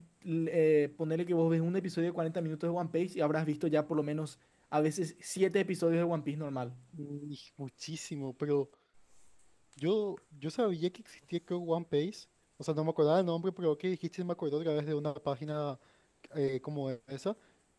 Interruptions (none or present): none